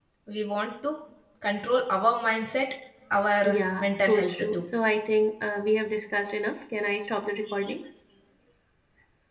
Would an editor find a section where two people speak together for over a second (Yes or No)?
Yes